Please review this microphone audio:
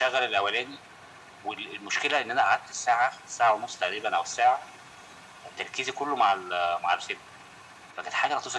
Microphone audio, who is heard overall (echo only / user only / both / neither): echo only